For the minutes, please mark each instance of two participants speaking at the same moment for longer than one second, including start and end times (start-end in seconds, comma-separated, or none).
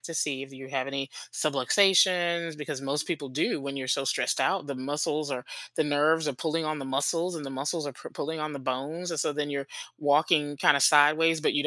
none